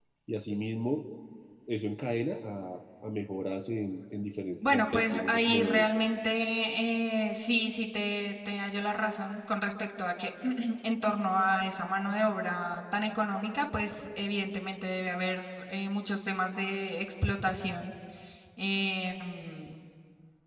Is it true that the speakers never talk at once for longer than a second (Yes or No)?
No